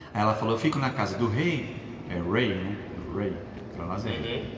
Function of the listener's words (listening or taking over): listening